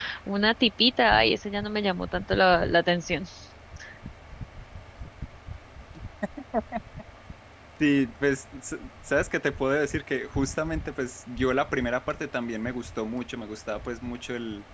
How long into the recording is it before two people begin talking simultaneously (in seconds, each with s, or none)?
none